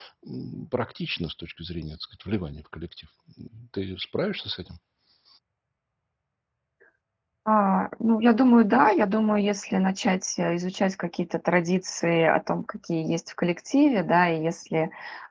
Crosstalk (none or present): none